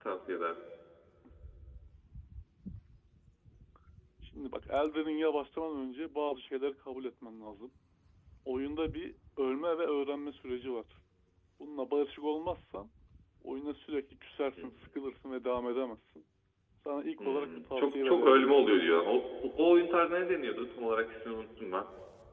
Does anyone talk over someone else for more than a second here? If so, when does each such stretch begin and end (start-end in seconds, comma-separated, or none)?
17.2-18.5